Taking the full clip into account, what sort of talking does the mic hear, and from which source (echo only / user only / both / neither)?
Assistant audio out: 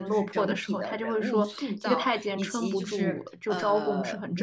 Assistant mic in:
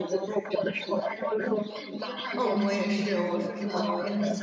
both